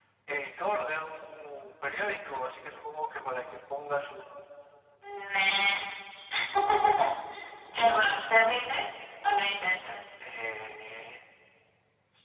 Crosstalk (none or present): none